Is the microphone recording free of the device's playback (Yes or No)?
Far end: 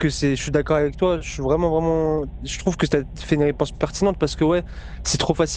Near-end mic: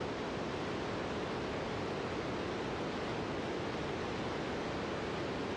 Yes